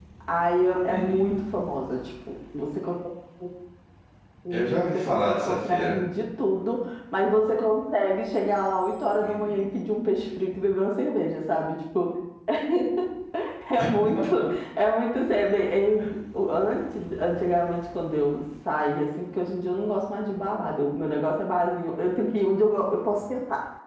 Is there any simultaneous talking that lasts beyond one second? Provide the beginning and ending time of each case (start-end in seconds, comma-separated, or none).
4.5-6.0